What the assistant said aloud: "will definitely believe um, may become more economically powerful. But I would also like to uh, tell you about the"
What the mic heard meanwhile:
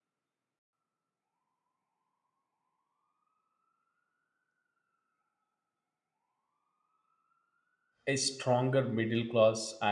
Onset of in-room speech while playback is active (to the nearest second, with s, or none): 8 s